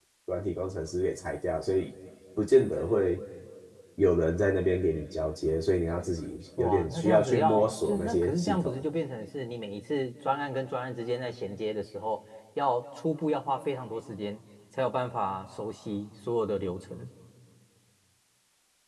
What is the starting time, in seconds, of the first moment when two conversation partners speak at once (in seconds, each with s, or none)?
6.6 s